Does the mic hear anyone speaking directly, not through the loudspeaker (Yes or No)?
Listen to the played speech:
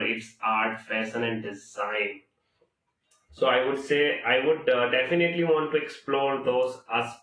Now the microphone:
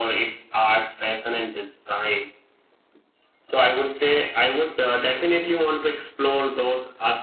No